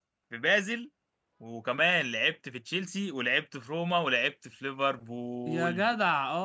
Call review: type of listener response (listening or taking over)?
taking over